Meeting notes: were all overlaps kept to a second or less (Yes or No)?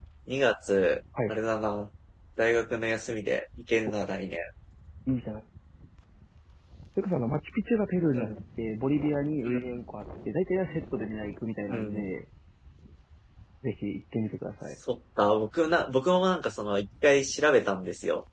Yes